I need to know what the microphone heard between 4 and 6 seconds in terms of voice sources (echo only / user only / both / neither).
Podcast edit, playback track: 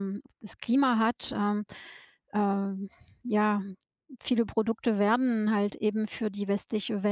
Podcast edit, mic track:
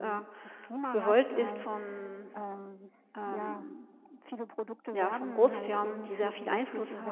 both